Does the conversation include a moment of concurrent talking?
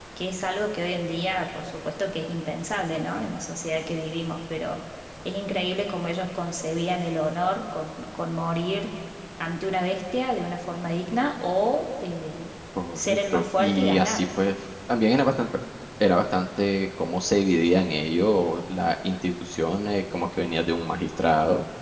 Yes, from 13.0 s

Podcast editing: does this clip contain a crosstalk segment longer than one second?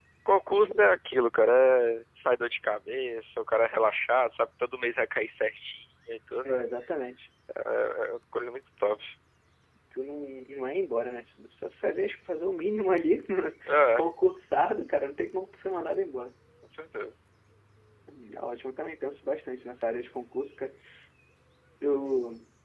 No

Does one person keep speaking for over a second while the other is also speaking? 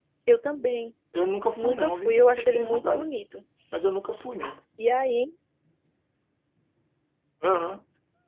Yes, from 1.6 s

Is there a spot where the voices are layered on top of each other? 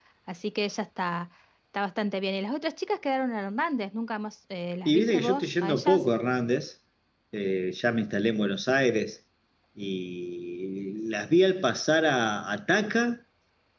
Yes, from 4.8 s

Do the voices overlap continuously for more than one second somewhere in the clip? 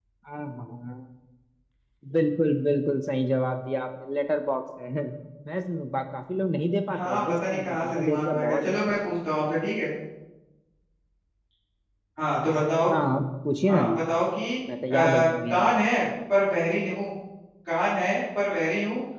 Yes, from 7.0 s

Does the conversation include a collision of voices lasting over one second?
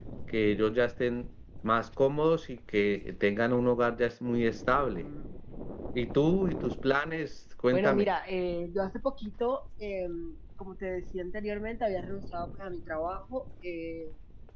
No

